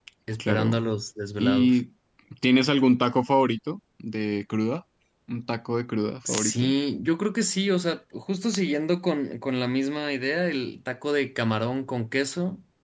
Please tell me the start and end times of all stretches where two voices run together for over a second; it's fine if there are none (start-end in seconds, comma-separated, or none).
none